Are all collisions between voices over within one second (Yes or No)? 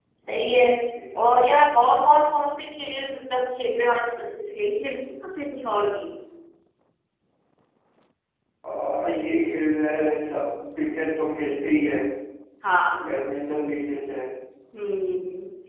Yes